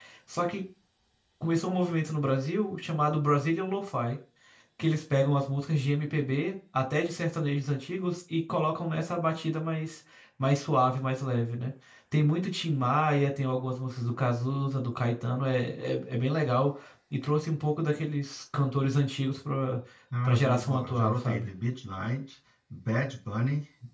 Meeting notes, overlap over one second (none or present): present